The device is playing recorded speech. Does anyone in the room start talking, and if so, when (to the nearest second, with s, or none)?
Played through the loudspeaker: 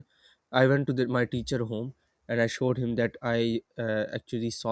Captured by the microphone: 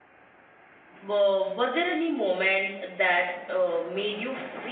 1 s